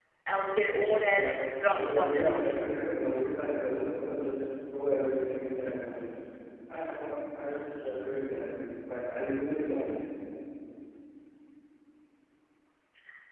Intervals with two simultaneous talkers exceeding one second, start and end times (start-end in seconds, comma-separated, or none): 1.0-2.6